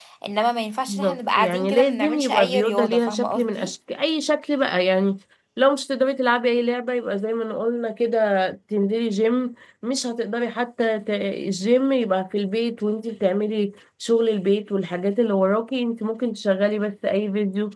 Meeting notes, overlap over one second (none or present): present